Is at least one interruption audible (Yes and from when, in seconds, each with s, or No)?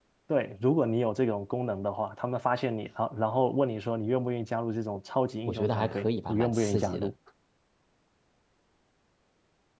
Yes, from 5.5 s